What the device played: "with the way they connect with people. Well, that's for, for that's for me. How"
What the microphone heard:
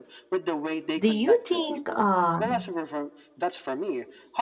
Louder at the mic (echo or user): user